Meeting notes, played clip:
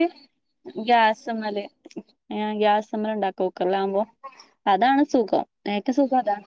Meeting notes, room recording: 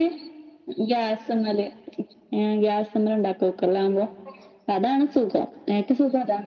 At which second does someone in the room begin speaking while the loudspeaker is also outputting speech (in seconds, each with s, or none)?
none